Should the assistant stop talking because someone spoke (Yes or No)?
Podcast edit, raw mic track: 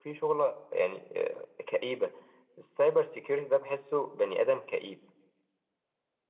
Yes